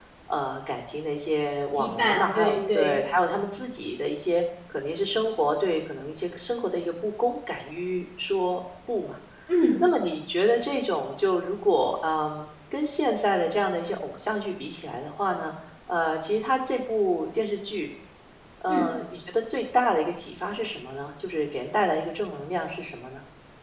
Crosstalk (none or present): present